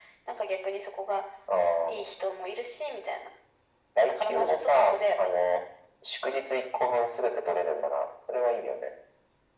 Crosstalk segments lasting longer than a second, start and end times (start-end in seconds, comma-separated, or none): 4.1-5.3